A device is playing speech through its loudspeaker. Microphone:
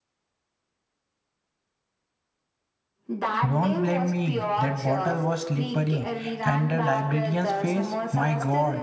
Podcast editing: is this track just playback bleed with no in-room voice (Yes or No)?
No